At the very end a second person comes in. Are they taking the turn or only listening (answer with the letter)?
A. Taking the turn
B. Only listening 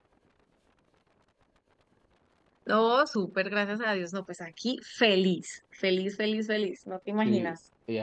A